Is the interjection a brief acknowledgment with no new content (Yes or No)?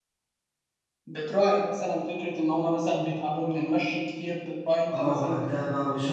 No